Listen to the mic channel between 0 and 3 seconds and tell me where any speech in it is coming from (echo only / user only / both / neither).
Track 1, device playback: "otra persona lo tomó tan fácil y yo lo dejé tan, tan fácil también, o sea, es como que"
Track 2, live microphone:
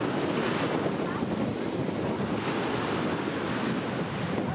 neither